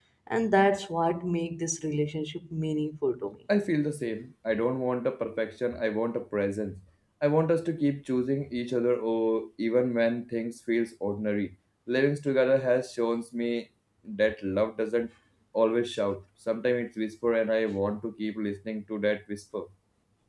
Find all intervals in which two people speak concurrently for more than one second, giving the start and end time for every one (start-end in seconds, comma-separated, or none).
none